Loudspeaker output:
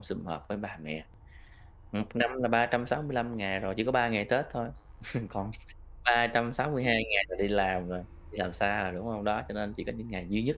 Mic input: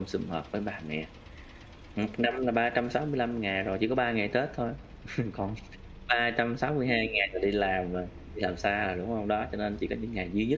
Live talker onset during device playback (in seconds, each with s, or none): none